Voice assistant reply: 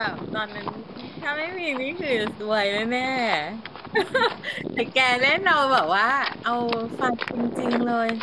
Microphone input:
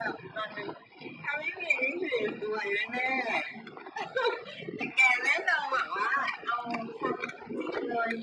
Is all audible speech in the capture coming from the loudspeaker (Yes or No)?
Yes